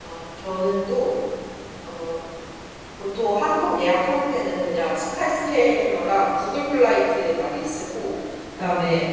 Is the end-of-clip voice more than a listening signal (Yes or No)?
No